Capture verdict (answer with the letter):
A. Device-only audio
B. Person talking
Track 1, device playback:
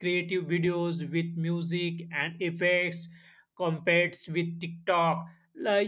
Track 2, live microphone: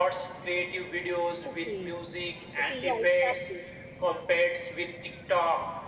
B